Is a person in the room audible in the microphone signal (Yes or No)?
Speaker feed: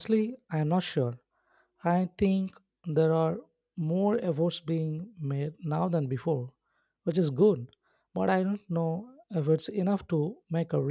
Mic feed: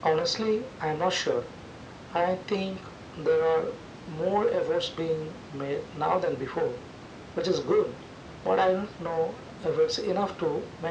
No